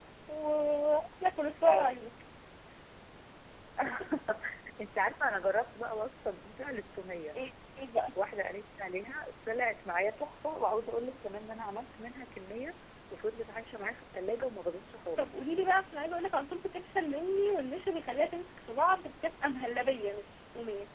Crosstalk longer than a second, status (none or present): none